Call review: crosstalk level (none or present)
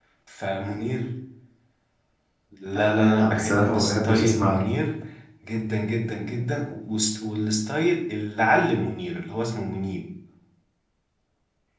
present